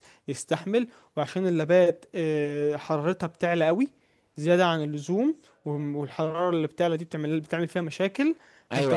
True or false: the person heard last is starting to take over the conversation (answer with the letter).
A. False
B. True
B